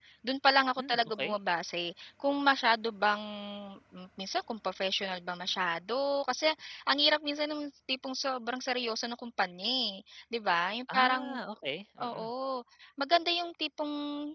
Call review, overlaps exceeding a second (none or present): none